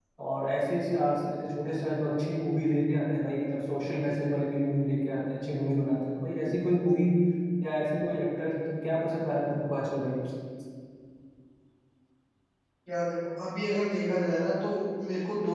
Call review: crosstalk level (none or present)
none